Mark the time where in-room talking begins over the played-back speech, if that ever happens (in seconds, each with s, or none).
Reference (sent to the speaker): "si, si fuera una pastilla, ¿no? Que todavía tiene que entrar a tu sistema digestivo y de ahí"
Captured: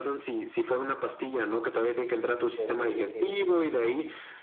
2.5 s